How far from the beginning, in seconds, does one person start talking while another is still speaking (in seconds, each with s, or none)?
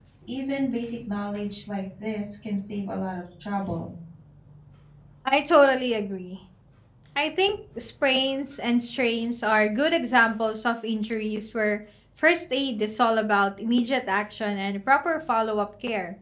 none